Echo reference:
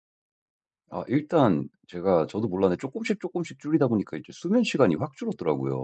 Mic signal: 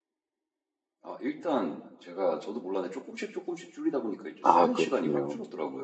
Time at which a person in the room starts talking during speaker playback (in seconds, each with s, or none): 4.4 s